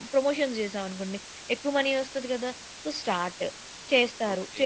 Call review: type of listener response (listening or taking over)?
taking over